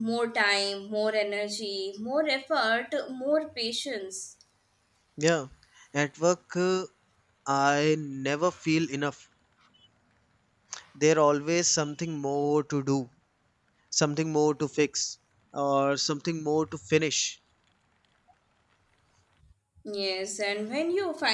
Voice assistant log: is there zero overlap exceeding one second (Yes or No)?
Yes